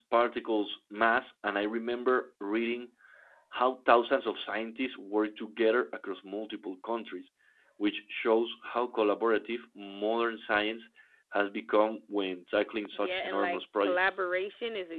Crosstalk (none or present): present